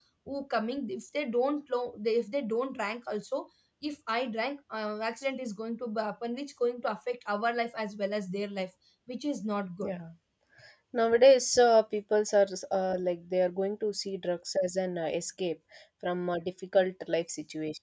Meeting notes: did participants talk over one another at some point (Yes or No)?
No